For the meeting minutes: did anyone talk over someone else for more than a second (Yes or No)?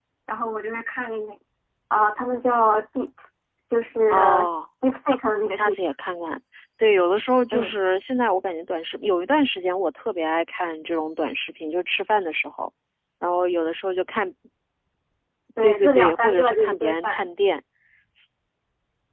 Yes